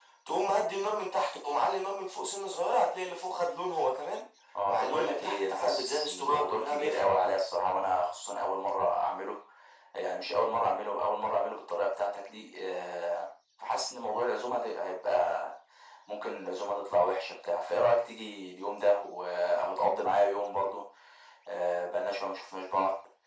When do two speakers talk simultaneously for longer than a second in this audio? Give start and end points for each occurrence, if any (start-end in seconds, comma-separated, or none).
4.7-7.3